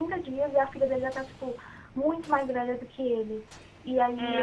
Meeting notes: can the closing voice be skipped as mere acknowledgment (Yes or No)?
No